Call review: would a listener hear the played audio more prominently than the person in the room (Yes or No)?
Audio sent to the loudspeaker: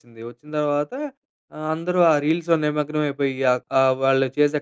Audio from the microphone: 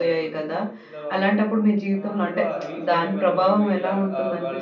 No